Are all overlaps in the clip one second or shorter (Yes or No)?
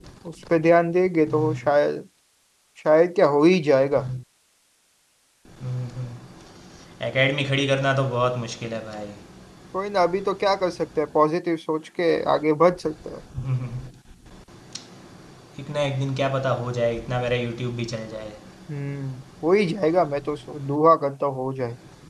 Yes